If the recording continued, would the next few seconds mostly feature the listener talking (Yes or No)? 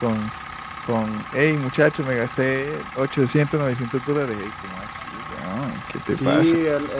Yes